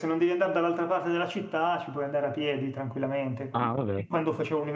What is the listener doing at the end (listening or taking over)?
listening